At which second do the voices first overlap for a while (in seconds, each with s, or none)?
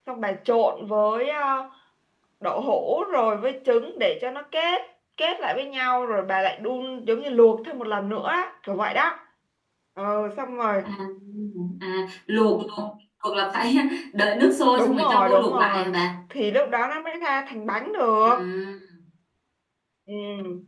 14.8 s